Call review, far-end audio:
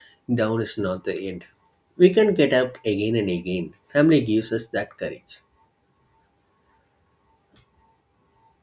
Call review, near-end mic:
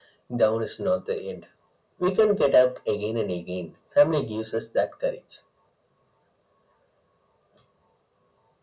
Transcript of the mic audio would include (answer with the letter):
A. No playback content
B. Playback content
B